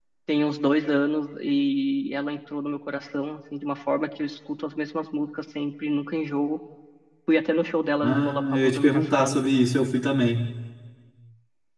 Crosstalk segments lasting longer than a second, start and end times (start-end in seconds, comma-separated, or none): 8.0-9.4